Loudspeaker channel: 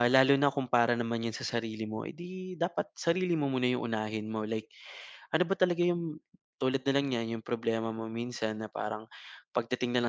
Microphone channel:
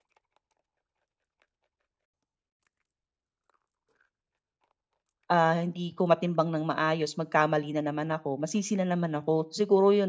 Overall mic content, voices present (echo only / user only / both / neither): user only